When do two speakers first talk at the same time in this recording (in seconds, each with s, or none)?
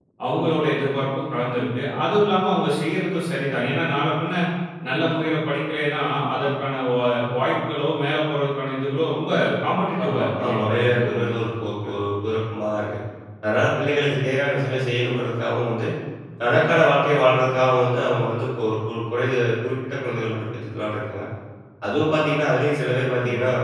10.0 s